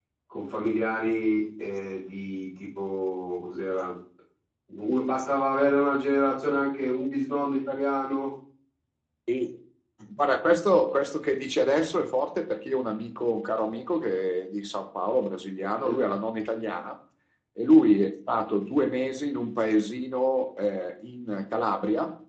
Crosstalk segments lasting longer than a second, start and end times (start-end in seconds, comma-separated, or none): none